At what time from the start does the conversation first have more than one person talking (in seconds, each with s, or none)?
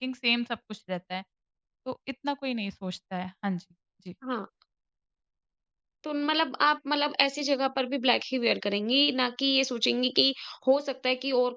none